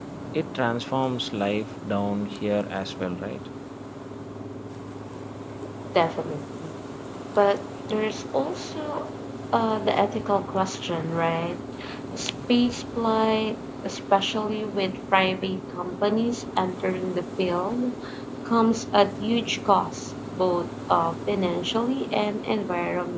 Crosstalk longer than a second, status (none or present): none